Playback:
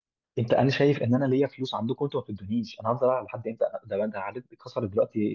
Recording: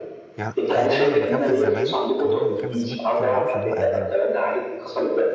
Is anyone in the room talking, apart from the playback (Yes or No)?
Yes